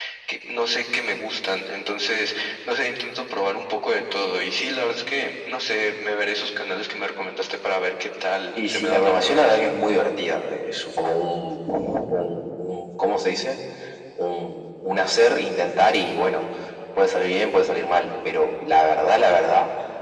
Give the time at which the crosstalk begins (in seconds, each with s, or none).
8.6 s